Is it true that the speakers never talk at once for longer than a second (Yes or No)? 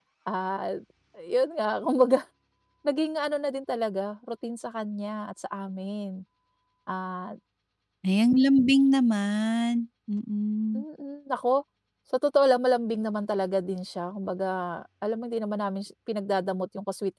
Yes